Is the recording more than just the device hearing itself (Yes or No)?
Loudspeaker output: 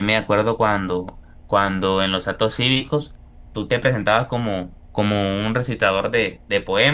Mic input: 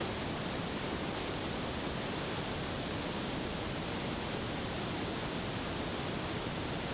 No